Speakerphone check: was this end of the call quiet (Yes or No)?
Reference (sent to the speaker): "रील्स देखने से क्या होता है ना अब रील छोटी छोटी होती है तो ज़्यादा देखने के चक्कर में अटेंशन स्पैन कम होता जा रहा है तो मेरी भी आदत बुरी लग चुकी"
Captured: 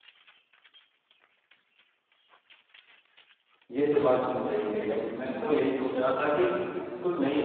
No